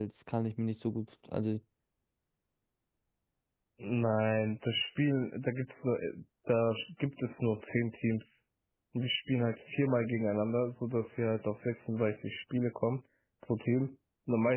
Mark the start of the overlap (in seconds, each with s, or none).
none